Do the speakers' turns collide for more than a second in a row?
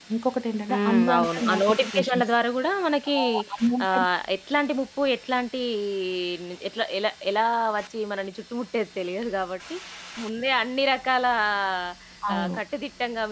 Yes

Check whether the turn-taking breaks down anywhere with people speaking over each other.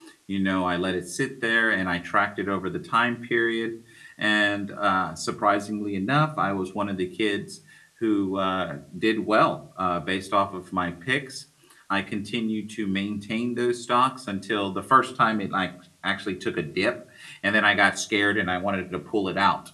No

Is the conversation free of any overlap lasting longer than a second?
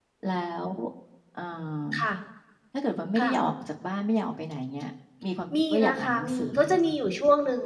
No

